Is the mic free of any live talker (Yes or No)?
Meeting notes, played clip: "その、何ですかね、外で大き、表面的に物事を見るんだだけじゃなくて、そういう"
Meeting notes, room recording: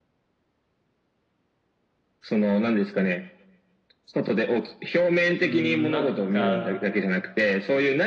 No